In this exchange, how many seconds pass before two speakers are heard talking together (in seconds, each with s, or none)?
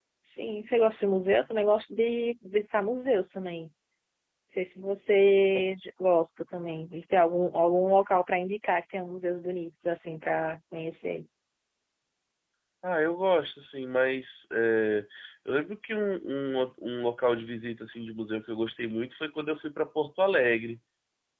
none